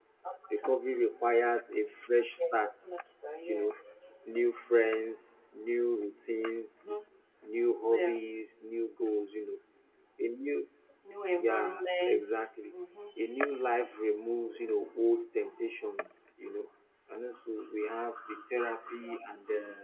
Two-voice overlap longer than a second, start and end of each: none

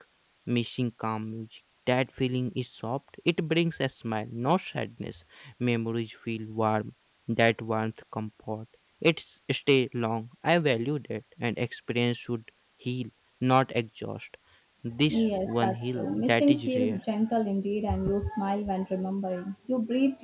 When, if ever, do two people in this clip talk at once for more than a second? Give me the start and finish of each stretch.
15.1-17.0

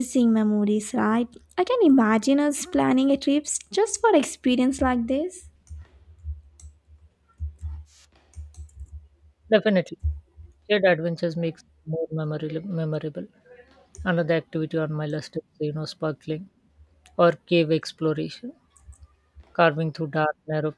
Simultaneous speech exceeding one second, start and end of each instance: none

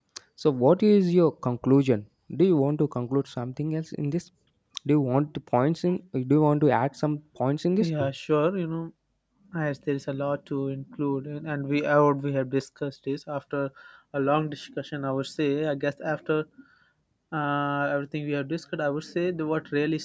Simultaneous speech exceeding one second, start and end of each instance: none

